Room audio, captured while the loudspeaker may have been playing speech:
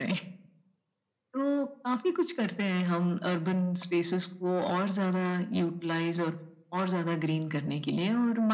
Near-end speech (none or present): none